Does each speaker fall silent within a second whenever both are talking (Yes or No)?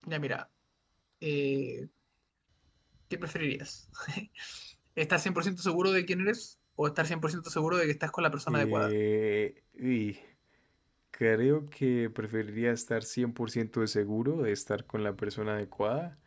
Yes